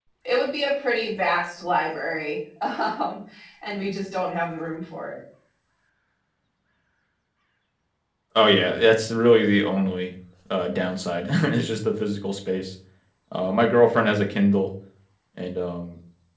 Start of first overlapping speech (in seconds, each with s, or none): none